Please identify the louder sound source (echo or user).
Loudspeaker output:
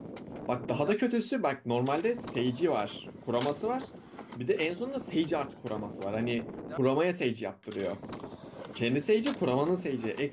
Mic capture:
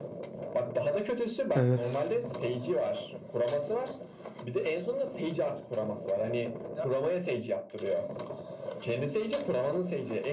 user